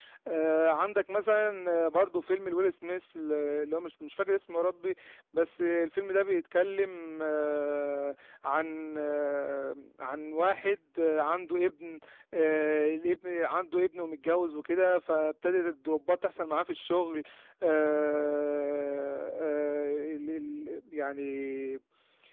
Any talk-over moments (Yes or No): No